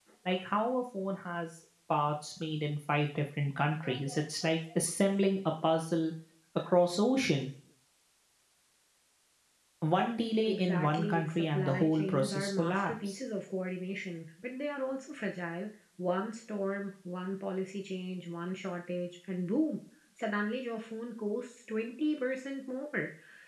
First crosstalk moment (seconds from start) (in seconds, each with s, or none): 10.5 s